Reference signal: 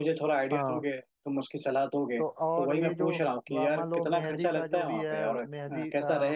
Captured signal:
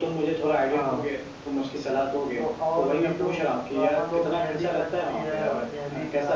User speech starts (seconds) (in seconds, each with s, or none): none